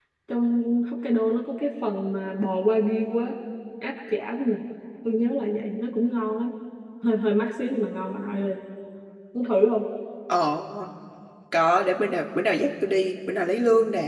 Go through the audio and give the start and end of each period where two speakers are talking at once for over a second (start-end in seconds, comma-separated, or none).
none